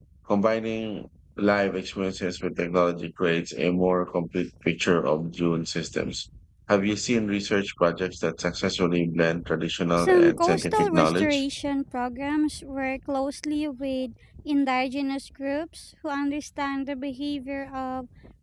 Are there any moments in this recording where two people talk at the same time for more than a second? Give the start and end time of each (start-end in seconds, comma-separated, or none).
10.0-11.4